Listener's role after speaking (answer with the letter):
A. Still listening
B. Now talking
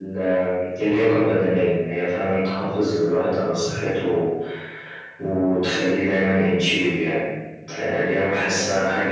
A